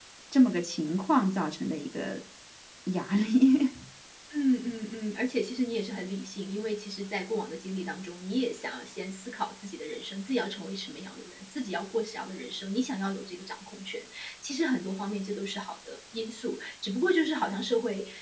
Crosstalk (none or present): none